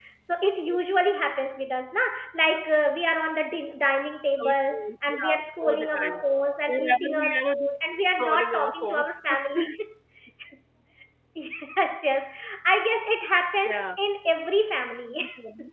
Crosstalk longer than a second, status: present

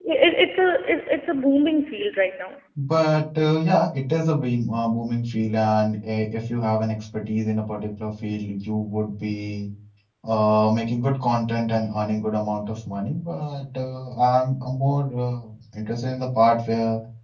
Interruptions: none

